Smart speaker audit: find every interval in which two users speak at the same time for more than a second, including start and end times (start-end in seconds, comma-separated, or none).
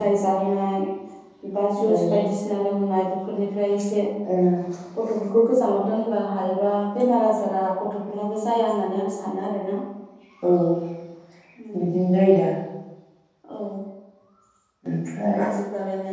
none